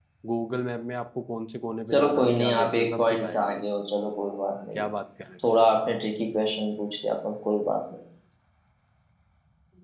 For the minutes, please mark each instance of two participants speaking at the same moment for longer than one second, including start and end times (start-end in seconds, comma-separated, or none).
1.9-3.6